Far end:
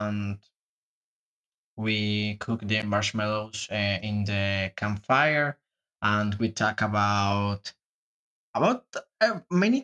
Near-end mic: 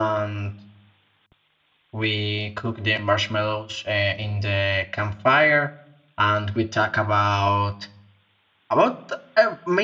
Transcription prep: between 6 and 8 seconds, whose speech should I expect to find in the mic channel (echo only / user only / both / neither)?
echo only